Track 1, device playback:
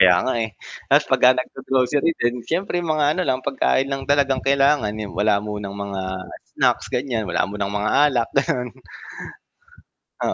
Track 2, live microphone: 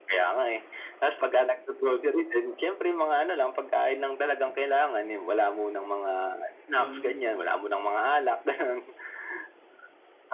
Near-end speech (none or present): present